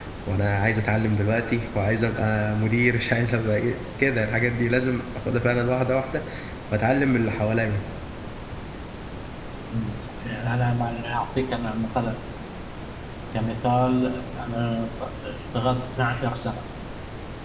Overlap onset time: none

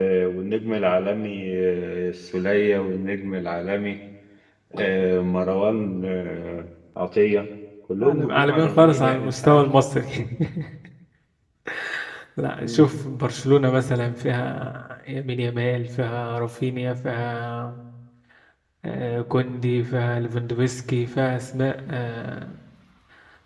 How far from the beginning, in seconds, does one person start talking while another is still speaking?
8.0 s

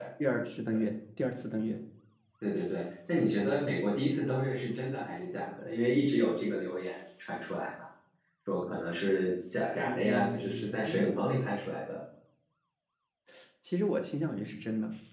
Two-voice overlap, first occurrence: 9.8 s

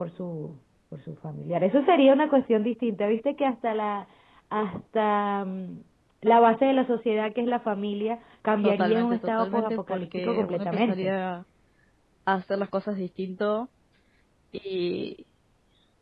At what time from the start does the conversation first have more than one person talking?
8.6 s

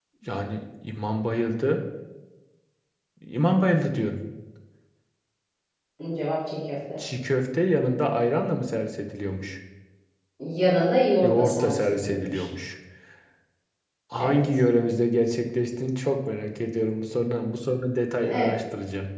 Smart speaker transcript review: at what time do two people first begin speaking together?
11.2 s

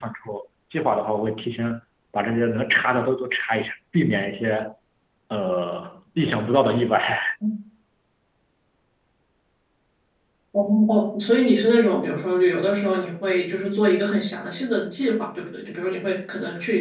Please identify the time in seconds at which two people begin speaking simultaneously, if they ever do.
none

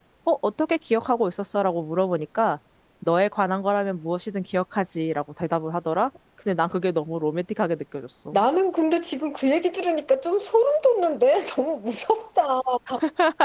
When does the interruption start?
none

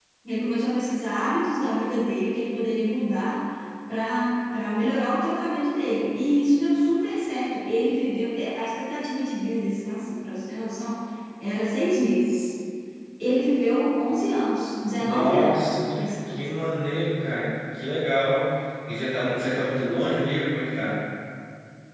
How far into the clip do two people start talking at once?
15.0 s

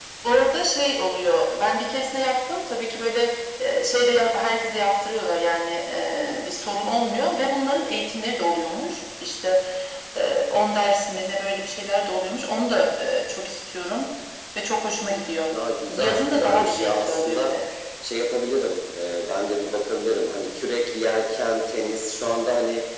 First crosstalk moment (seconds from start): 15.9 s

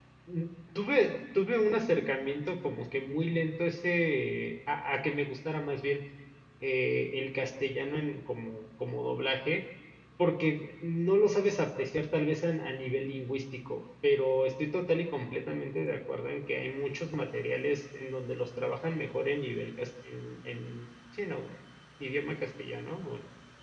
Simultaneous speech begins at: none

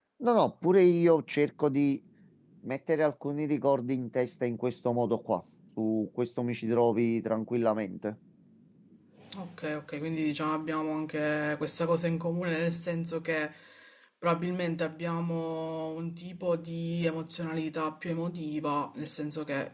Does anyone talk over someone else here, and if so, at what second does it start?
none

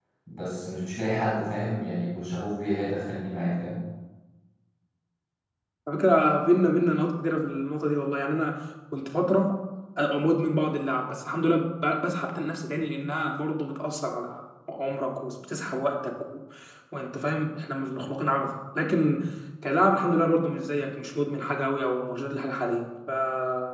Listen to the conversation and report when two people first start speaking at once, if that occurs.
none

